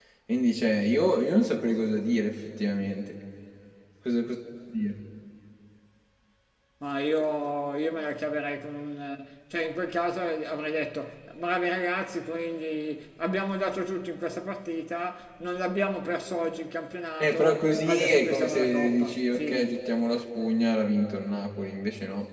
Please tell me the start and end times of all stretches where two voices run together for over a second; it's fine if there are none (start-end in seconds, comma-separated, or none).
17.2-19.7